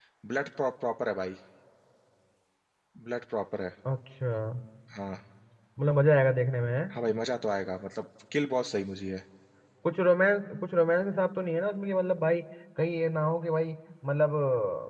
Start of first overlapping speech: none

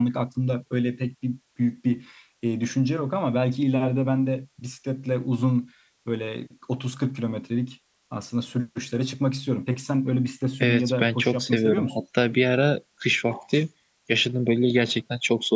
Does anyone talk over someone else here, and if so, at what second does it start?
10.6 s

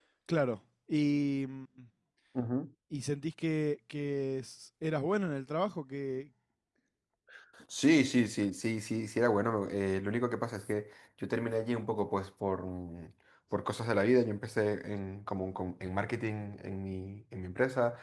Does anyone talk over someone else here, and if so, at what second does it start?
none

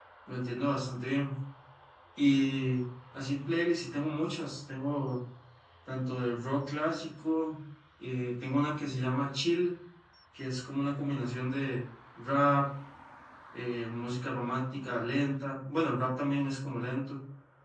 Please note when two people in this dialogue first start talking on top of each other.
none

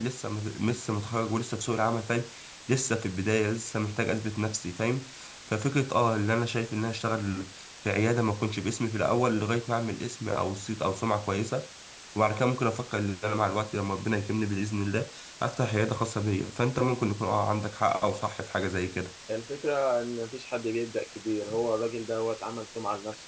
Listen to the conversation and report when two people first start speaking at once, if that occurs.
none

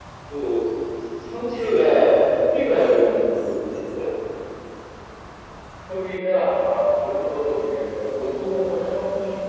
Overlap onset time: none

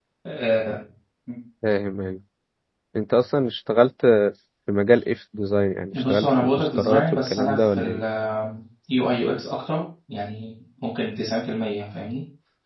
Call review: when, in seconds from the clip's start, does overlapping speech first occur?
5.9 s

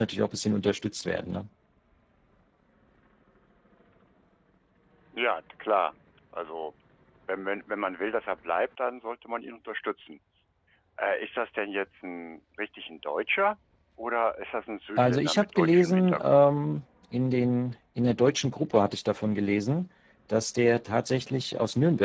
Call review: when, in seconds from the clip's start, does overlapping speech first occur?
15.0 s

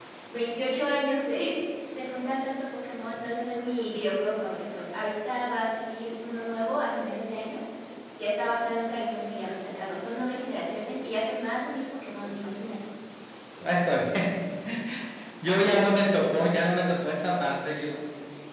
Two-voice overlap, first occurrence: none

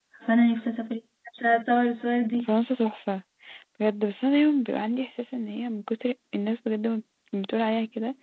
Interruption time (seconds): none

